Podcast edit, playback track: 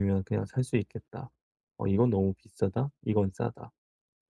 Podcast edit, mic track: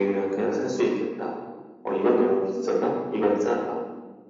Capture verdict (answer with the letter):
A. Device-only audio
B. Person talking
A